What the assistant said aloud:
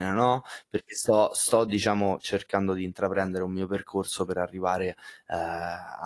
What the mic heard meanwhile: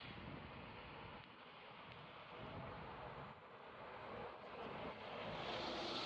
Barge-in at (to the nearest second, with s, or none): none